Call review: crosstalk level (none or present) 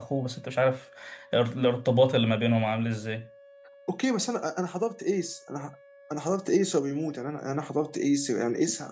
none